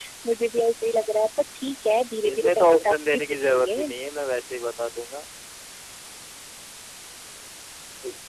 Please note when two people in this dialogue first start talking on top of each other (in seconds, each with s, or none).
2.2 s